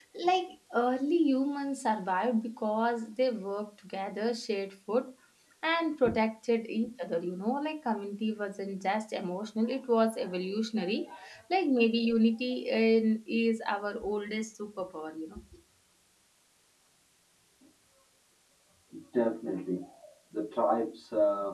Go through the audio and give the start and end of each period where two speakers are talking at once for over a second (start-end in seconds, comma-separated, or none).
none